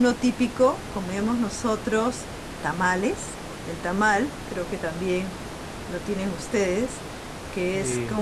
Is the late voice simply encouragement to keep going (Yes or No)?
Yes